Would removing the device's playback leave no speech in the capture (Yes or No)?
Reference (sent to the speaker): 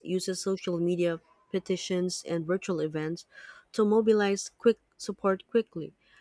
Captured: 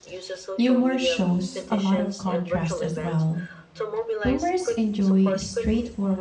No